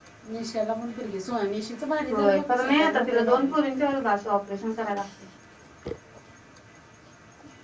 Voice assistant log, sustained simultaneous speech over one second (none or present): present